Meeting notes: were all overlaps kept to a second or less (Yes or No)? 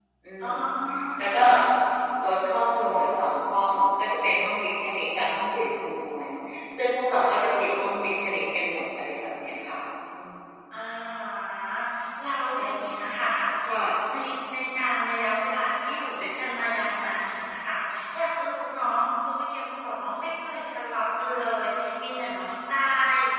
Yes